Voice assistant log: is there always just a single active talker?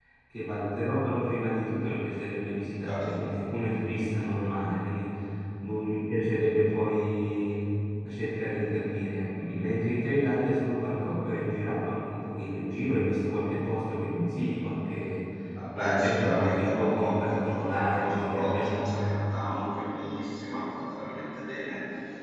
No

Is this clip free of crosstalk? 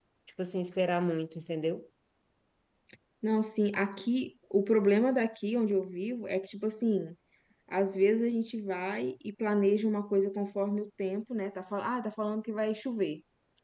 Yes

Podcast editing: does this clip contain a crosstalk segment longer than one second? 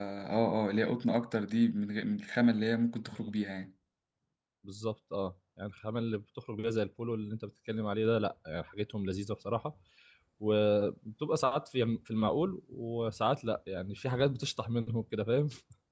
No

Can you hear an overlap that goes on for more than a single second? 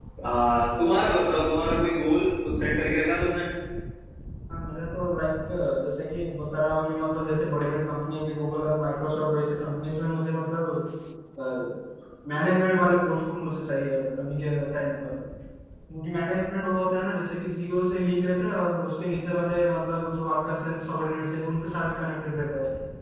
No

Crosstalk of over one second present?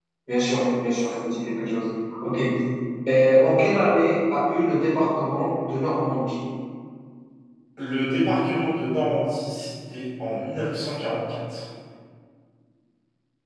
No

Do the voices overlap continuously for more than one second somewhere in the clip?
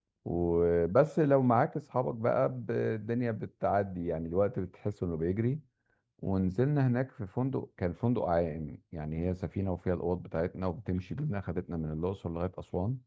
No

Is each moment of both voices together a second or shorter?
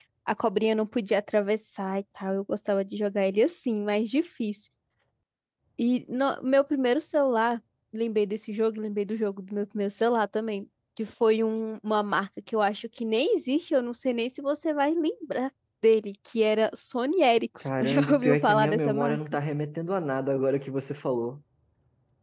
No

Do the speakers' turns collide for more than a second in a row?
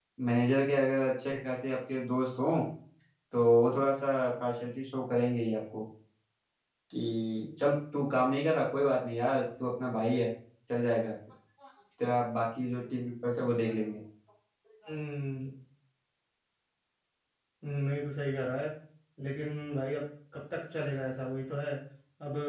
No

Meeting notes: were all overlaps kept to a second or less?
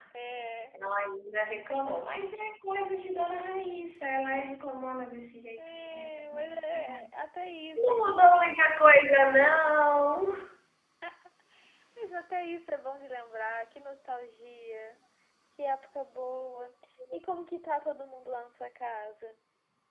No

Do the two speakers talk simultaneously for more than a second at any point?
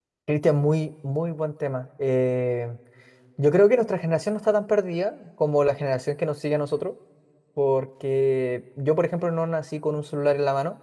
No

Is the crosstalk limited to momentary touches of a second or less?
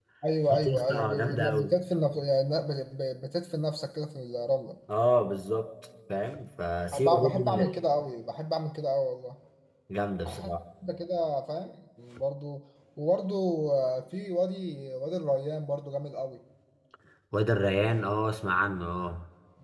No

